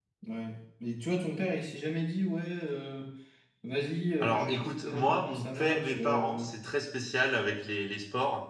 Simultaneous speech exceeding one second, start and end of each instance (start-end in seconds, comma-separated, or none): 4.2-6.5